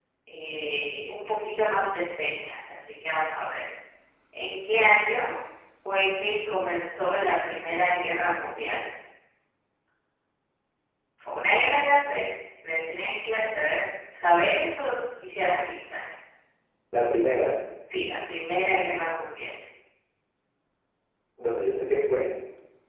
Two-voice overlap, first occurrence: none

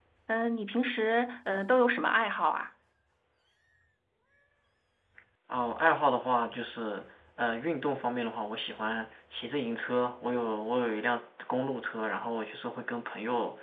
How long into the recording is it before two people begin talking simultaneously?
none

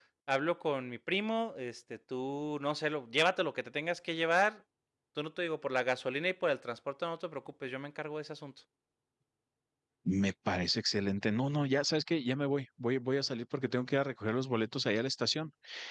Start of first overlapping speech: none

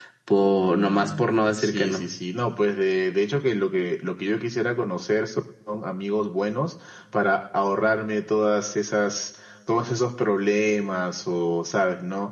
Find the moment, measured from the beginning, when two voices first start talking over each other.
0.7 s

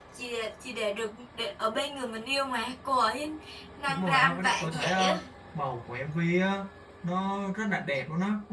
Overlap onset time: 3.9 s

